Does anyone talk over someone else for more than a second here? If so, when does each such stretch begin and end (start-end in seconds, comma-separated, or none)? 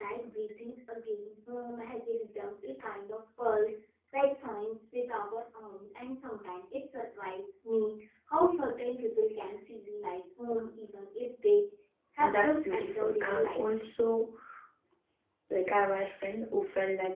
12.2-13.6